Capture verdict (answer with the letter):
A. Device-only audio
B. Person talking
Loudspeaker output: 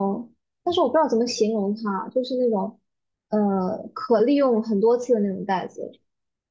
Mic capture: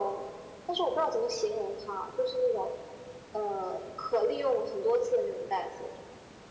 A